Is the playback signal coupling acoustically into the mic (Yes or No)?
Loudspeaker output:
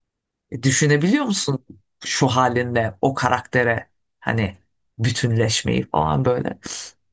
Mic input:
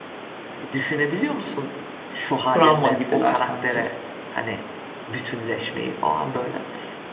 Yes